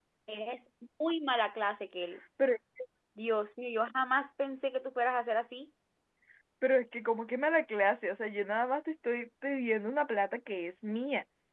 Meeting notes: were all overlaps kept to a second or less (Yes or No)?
Yes